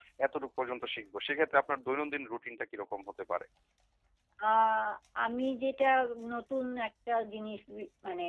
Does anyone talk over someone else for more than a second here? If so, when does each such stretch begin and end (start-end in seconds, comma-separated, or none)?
none